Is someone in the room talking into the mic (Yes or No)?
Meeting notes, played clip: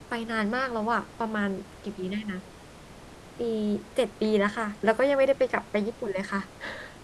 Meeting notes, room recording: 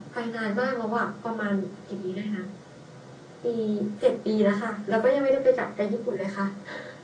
No